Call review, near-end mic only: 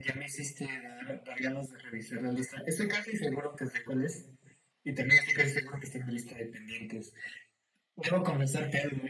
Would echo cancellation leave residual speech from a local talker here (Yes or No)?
No